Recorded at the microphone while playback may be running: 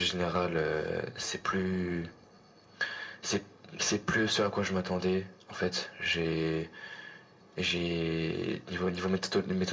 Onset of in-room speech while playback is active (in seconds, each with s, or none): none